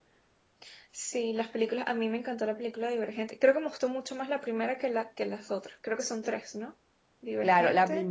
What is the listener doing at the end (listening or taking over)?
taking over